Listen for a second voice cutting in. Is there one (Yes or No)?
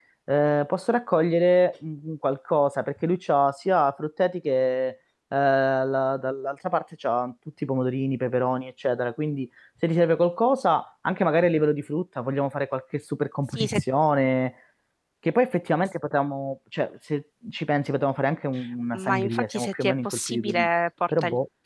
Yes